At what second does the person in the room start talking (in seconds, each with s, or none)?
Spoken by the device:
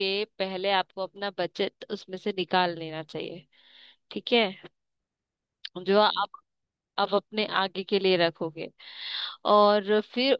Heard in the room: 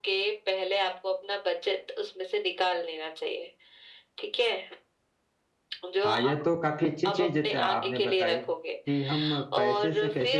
6.0 s